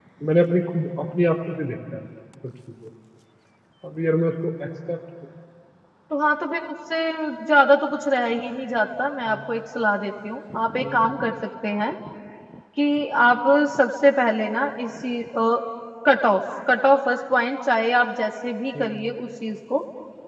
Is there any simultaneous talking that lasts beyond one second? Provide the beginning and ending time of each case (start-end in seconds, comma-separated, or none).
none